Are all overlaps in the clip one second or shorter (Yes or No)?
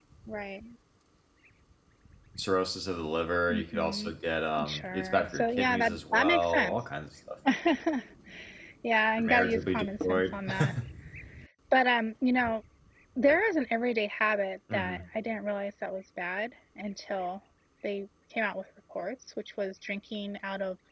No